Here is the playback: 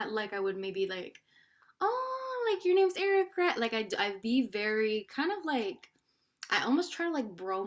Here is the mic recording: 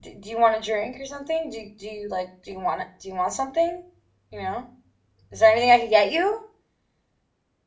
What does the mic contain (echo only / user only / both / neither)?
user only